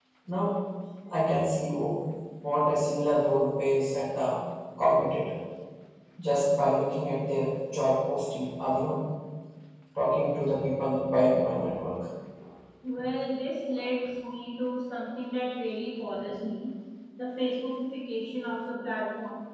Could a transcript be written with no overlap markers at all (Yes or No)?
Yes